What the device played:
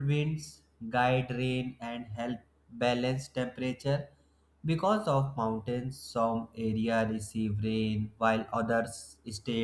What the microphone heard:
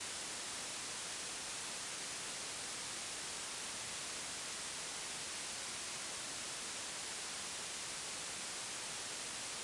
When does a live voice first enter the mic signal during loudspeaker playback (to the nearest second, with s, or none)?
none